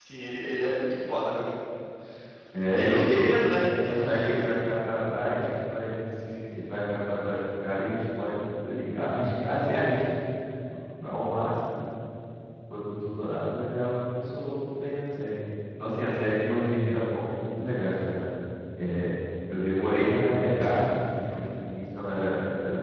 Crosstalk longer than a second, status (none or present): present